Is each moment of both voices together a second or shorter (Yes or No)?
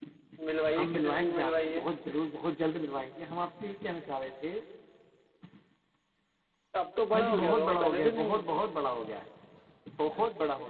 No